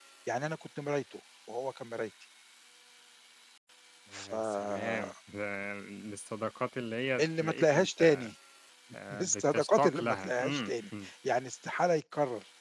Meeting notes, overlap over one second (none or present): present